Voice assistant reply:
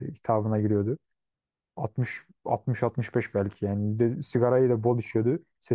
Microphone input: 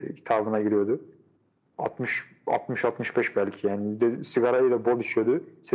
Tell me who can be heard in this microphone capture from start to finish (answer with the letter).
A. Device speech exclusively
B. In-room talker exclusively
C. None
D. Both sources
A